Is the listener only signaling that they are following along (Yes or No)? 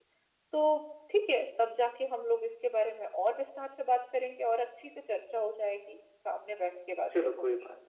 No